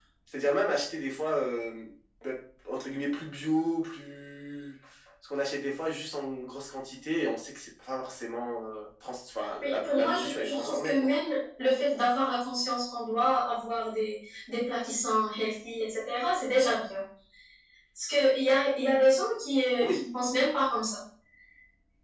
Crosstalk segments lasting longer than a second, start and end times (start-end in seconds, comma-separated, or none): 9.6-11.1